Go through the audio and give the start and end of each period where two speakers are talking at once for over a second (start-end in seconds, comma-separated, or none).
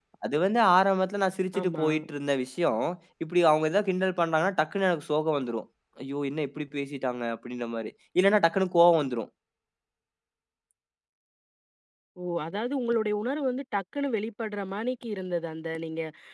none